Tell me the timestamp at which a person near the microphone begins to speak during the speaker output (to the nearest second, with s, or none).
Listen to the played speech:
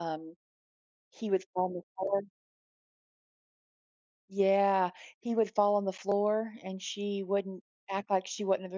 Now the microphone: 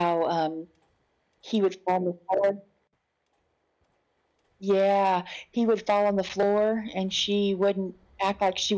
none